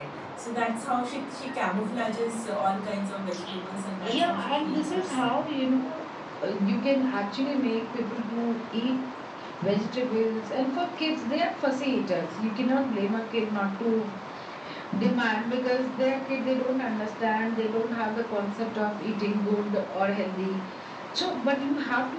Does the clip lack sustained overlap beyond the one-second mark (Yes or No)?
No